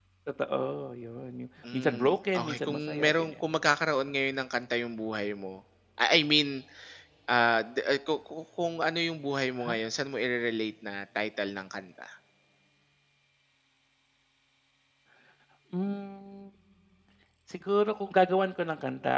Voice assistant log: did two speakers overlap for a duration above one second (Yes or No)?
Yes